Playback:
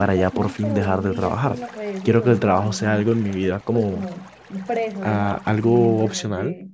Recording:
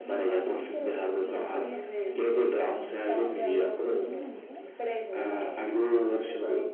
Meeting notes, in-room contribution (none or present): present